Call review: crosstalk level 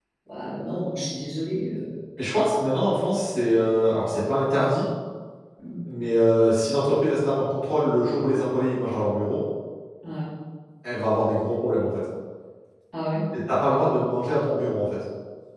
none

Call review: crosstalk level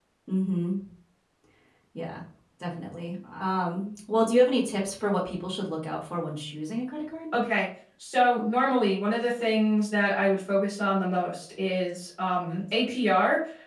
none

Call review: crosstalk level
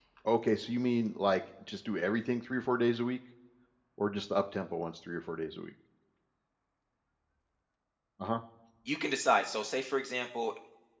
none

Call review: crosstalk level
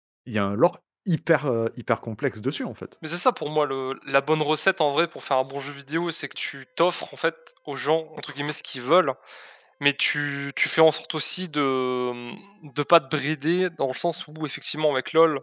none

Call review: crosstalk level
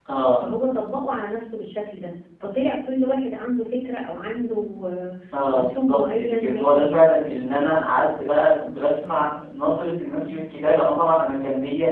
present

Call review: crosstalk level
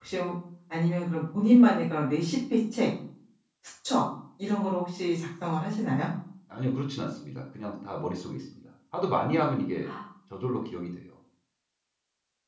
none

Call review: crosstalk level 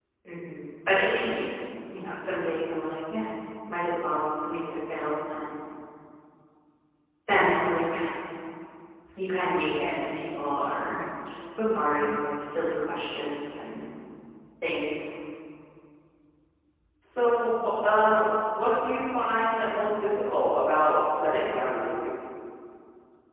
none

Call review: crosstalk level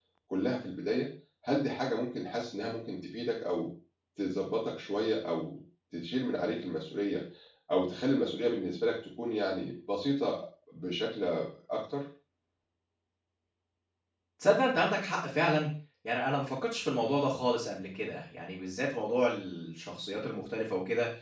none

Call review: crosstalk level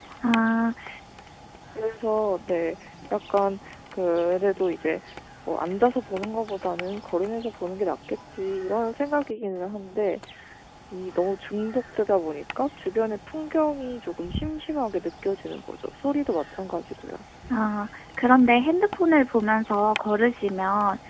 none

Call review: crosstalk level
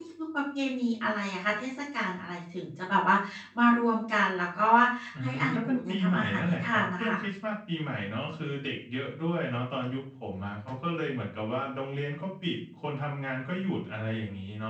present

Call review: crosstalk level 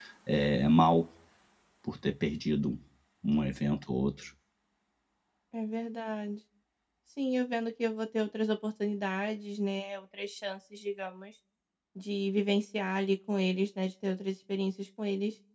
none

